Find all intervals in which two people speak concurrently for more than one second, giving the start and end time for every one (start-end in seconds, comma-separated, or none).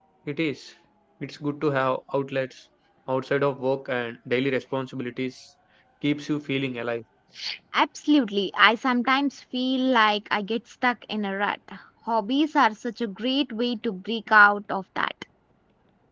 none